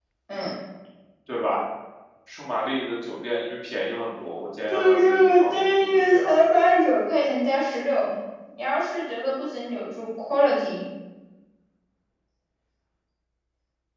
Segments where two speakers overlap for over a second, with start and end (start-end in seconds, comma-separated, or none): 4.7-6.3